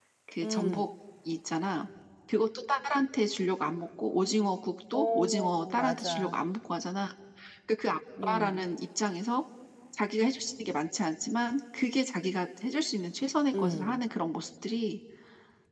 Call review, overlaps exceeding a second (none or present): present